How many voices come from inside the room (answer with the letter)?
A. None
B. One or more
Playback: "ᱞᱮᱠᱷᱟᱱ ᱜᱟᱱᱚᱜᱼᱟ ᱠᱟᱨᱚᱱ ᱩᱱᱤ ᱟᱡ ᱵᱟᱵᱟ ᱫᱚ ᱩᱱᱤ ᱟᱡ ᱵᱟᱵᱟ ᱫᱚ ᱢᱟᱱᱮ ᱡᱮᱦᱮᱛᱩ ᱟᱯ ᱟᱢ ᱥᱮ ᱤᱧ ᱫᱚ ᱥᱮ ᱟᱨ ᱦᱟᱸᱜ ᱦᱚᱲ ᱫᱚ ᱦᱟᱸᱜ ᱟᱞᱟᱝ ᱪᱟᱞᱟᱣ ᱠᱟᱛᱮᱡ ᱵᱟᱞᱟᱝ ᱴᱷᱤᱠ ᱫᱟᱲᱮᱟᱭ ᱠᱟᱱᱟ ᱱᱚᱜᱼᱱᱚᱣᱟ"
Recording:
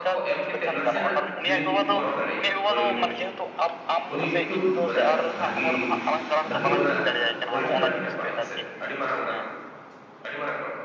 B